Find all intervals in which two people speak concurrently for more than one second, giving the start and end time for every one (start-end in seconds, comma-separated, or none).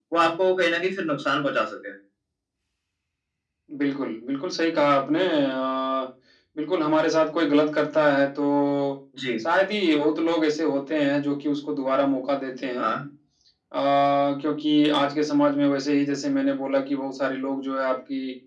none